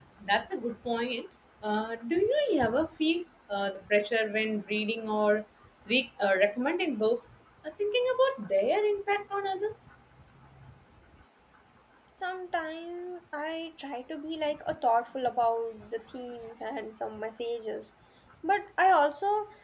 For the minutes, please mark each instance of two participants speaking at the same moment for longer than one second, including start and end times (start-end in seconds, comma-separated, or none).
none